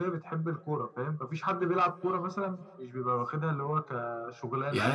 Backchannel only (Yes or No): No